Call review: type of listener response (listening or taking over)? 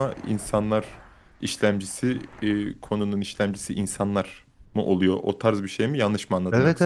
taking over